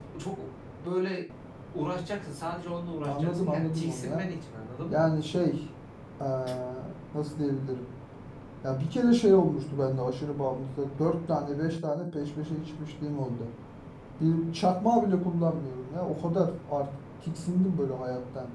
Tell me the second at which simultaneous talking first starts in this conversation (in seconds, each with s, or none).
3.0 s